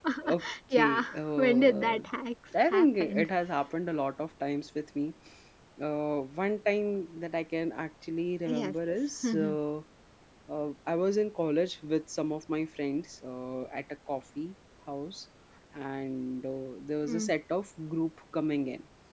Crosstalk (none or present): present